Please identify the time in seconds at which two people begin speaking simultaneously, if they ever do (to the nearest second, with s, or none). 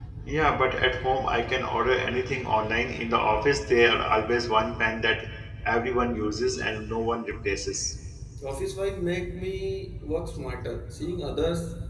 none